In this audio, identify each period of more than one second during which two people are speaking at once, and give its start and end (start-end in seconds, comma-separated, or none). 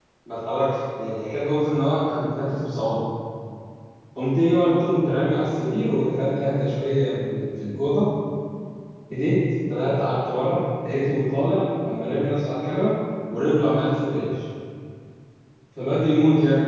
none